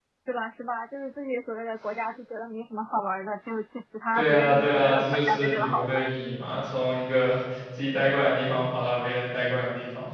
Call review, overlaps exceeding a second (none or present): present